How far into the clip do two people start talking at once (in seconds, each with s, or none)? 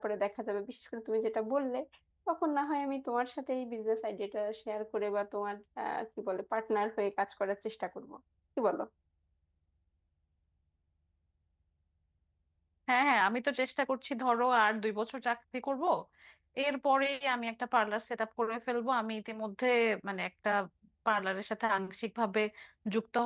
none